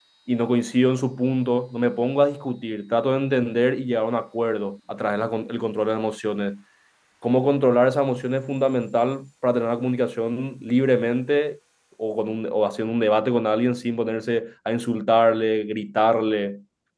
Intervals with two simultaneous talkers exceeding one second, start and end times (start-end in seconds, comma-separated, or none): none